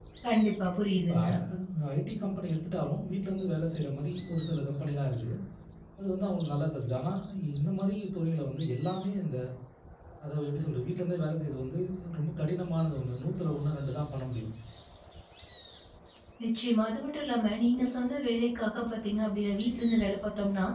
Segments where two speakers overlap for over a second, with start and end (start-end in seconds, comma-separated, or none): none